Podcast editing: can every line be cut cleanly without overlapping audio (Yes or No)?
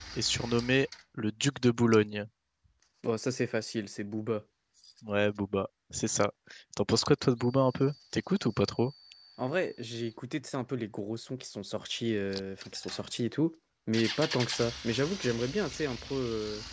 Yes